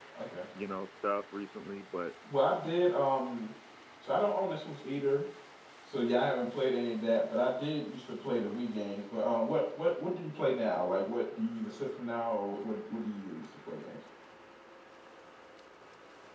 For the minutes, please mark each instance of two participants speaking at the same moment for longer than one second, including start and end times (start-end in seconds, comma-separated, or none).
none